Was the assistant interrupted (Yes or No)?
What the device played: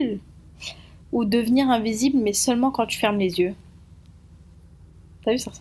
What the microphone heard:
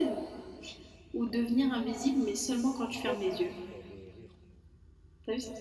Yes